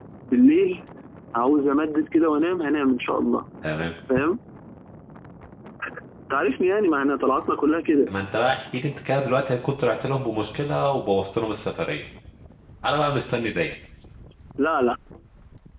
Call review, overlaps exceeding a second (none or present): none